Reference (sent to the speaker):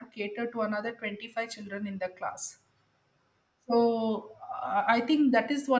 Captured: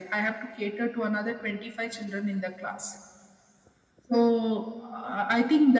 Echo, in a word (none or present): present